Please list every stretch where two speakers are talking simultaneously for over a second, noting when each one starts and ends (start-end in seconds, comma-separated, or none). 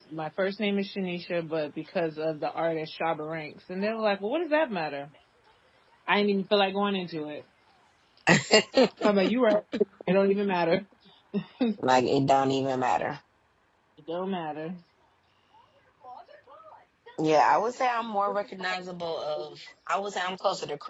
none